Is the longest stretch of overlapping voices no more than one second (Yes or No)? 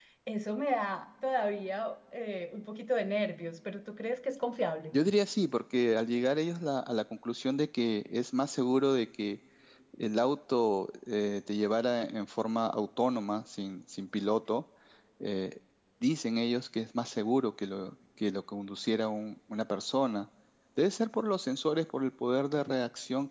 Yes